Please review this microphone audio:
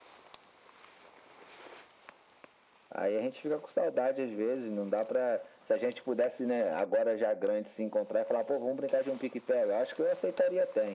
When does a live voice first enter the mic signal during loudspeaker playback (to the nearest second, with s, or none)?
none